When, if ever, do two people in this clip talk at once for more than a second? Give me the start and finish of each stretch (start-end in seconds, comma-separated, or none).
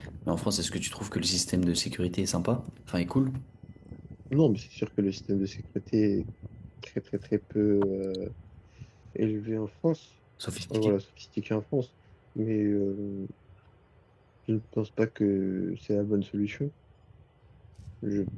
none